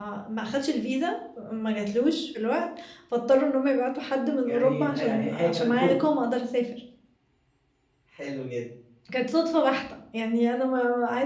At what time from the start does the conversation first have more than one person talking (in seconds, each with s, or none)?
4.4 s